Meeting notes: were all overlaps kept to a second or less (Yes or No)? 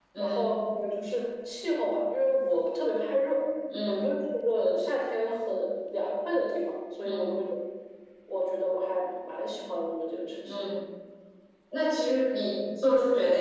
Yes